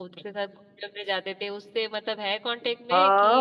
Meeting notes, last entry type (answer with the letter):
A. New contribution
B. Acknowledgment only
A